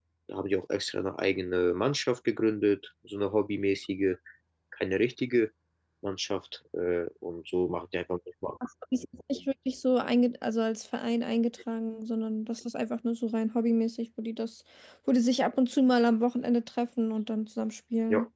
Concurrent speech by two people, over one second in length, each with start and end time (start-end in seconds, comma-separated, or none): none